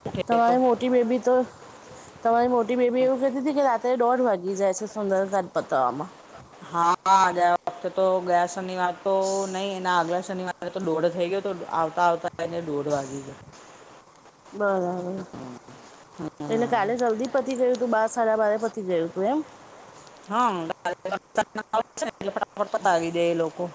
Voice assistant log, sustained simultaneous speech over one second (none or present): none